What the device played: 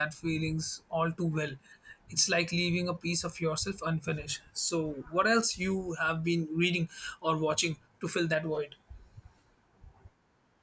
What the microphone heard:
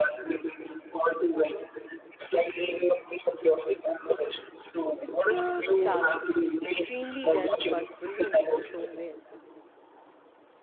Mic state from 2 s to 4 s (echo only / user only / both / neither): echo only